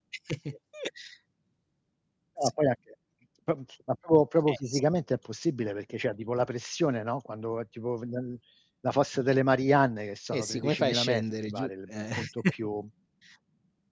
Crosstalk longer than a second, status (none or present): present